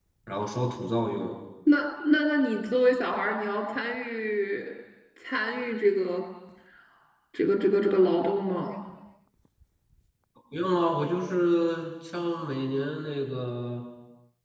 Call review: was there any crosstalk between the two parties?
No

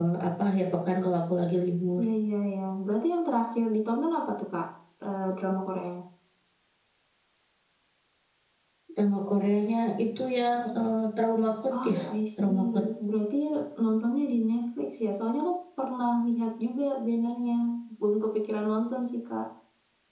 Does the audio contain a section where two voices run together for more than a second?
No

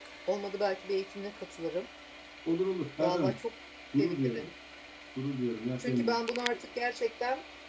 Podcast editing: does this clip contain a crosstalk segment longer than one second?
No

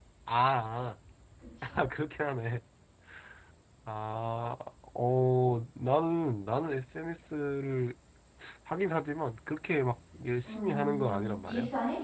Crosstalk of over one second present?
Yes, from 10.4 s

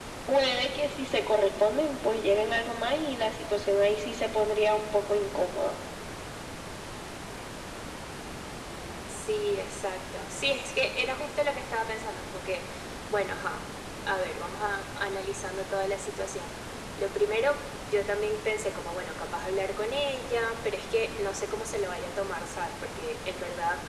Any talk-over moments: No

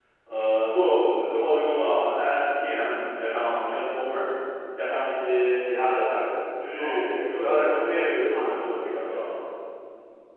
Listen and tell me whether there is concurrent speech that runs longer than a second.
Yes, from 6.8 s

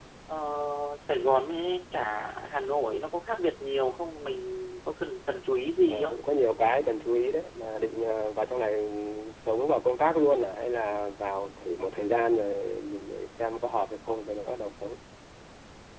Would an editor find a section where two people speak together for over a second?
No

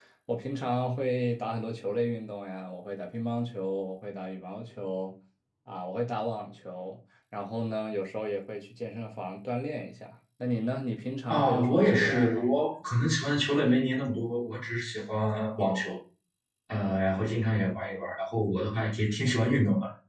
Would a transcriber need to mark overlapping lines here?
Yes, from 11.3 s

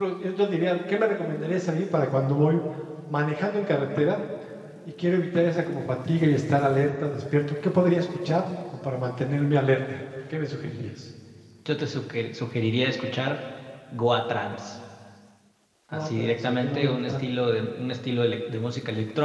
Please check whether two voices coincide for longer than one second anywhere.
Yes, from 15.9 s

